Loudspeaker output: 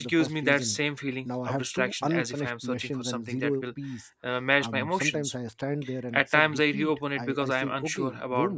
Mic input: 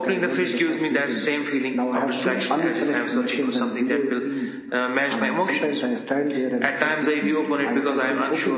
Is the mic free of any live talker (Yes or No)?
Yes